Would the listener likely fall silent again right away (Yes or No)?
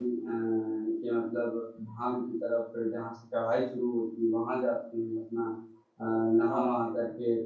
Yes